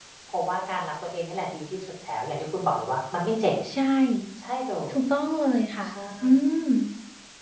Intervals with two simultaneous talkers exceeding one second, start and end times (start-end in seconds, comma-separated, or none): none